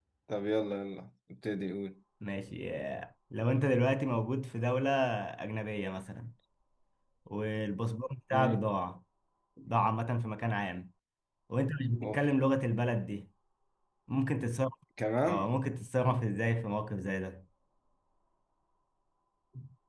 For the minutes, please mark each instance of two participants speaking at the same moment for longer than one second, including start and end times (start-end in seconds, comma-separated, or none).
none